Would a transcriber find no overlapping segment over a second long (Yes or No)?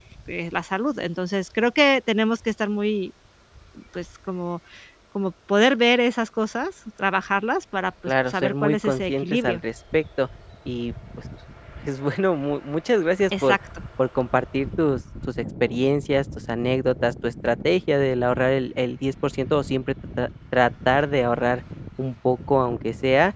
No